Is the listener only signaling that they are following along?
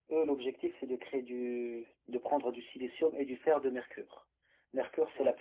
Yes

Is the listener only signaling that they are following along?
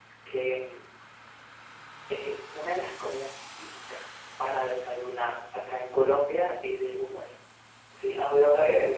No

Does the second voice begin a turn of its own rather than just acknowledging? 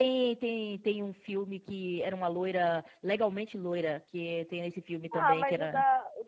Yes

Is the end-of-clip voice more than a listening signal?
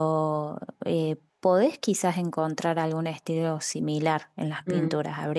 No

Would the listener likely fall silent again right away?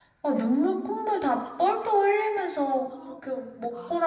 Yes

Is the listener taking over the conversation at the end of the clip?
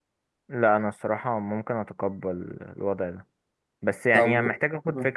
No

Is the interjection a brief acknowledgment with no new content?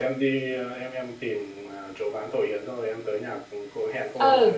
No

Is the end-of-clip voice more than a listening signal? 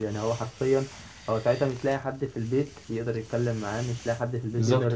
No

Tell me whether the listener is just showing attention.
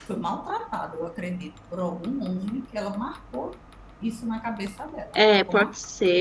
No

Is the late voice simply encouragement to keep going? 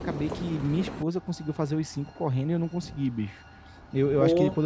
Yes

